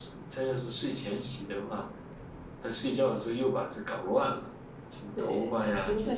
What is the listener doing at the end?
taking over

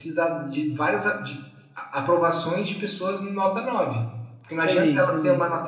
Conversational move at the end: listening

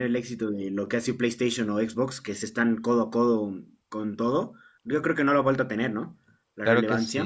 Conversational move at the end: taking over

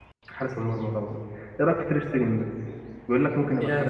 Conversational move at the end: taking over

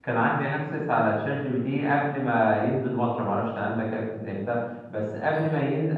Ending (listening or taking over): listening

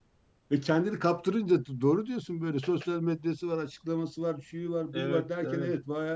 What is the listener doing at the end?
listening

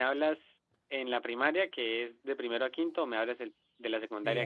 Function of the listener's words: taking over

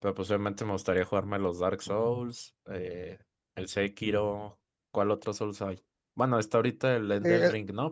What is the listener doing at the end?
taking over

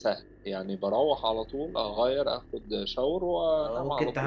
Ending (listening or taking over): taking over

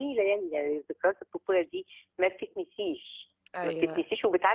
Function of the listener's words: listening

